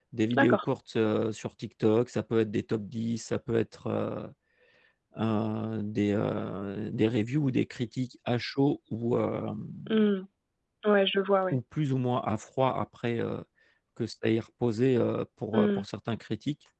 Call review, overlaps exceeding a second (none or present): none